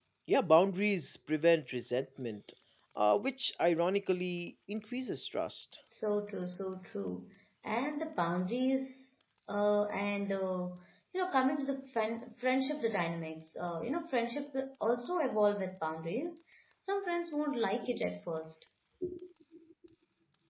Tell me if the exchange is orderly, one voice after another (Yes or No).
Yes